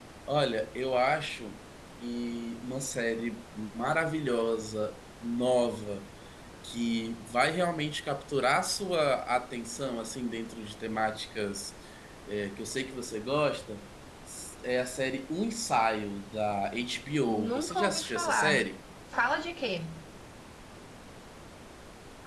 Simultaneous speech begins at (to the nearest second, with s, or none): 17 s